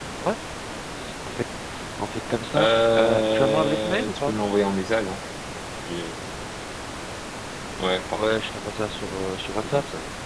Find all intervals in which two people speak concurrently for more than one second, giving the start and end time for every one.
2.6-4.3

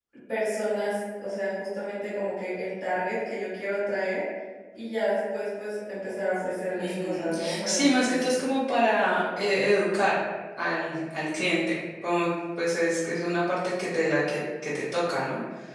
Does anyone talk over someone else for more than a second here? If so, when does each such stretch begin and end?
6.8-8.4

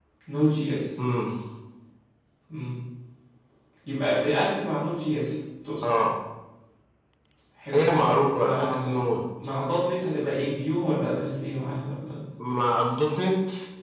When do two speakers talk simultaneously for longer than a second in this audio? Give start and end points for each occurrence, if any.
7.7-8.9

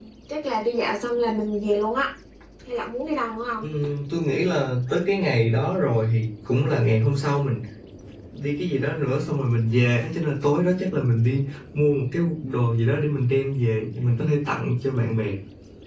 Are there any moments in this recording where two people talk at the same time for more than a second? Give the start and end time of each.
none

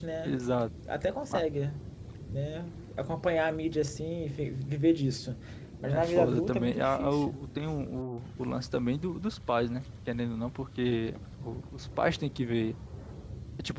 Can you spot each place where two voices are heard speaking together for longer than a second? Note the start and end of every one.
5.9-7.4

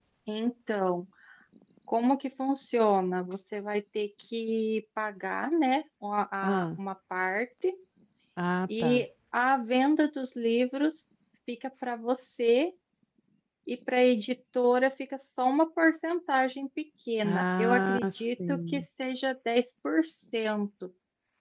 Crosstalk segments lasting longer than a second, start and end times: 17.2-18.8

